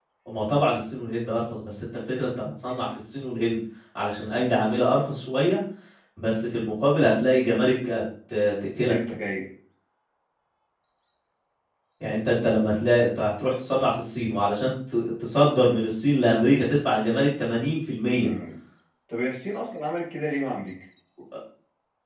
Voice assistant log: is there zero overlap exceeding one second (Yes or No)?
Yes